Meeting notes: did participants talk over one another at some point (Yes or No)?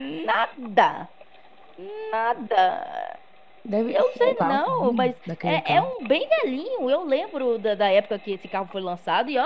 Yes